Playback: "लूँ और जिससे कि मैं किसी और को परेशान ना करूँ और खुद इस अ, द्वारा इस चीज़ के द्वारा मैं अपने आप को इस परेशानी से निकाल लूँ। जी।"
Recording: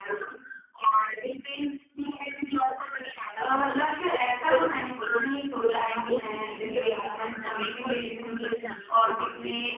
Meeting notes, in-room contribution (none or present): present